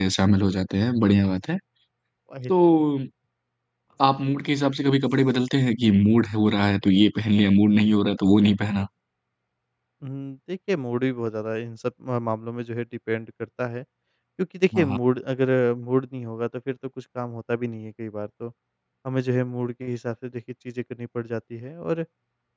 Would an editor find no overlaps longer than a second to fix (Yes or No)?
Yes